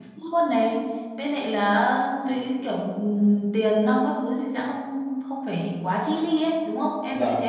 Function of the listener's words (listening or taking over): taking over